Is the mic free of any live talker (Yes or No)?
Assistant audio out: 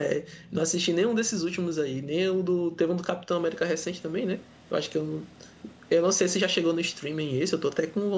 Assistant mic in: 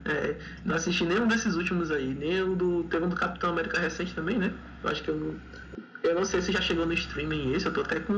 Yes